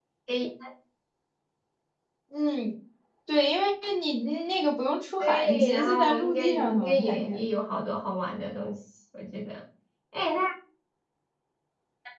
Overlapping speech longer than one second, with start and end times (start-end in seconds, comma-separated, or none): 5.2-7.5